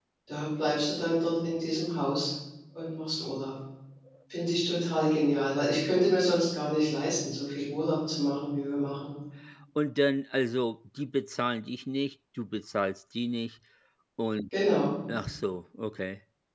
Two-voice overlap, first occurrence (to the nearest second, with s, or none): none